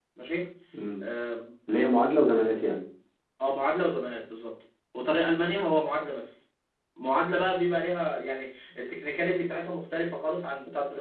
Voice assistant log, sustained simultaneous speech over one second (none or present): none